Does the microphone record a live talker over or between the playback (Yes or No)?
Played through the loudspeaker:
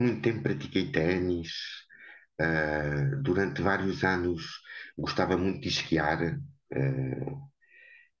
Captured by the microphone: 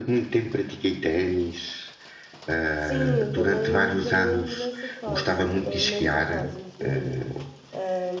Yes